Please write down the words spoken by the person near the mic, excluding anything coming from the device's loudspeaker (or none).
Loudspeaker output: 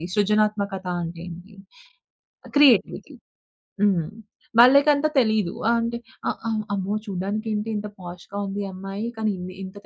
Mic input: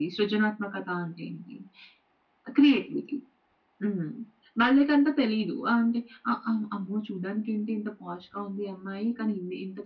none